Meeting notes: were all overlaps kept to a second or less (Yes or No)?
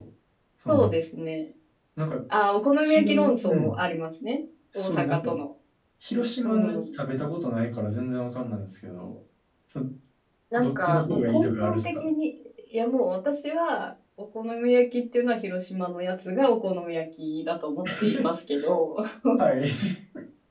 No